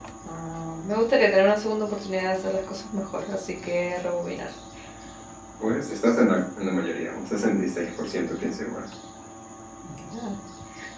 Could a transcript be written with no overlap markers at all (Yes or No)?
Yes